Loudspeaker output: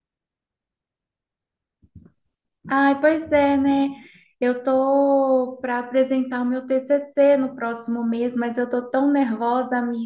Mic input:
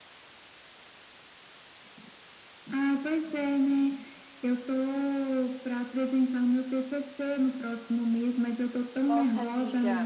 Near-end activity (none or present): present